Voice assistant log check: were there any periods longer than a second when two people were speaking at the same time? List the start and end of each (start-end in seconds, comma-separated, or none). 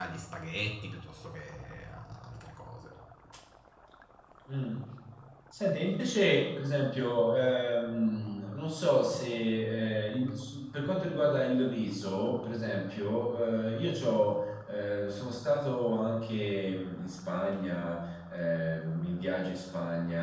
none